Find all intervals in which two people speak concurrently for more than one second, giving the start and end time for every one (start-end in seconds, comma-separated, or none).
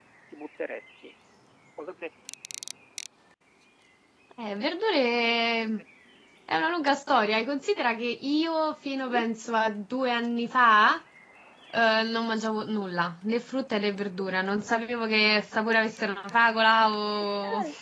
none